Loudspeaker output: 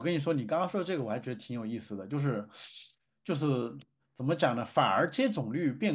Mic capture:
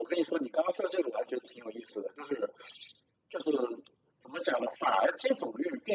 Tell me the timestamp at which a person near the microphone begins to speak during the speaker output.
none

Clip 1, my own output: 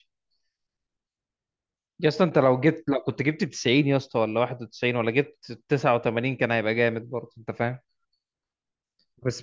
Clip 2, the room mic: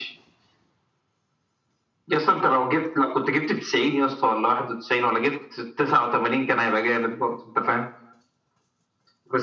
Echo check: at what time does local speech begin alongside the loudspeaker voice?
none

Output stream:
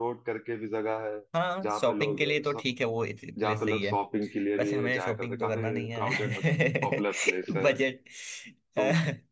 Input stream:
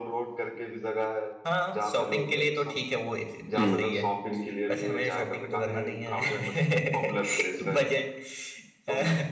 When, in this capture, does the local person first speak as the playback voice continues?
4 s

